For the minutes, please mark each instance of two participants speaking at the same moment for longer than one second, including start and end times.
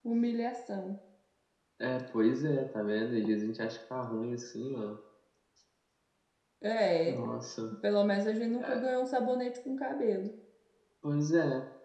none

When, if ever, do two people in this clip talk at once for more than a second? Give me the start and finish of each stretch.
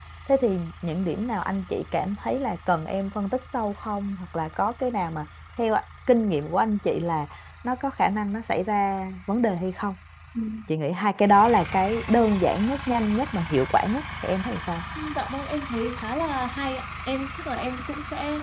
none

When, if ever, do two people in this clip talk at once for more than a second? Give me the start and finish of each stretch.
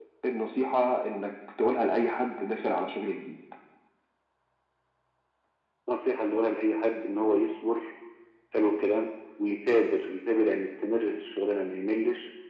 none

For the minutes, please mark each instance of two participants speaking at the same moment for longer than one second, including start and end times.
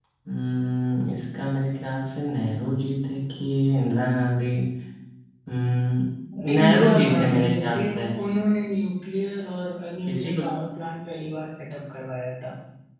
6.5-7.8

